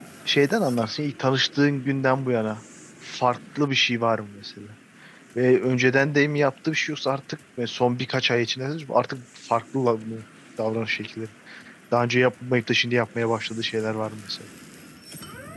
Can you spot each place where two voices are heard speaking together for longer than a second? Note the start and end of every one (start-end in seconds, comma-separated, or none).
none